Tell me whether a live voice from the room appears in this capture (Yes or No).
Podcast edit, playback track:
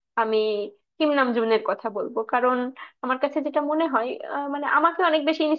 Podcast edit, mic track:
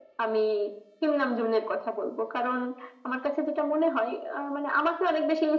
No